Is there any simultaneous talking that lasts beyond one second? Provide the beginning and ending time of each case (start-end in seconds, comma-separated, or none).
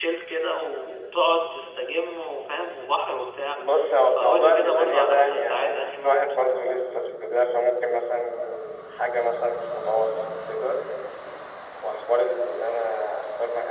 4.2-6.2